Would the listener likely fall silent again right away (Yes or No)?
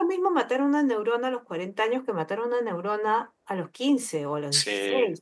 Yes